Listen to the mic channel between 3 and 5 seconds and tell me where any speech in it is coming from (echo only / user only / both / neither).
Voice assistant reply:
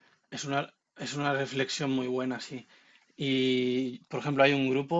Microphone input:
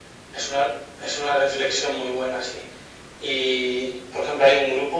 echo only